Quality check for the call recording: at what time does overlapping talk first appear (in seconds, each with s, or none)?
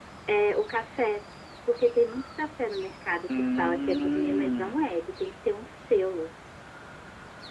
3.3 s